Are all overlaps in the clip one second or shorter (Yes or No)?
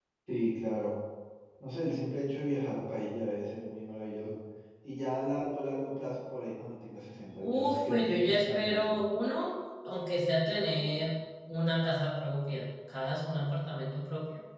No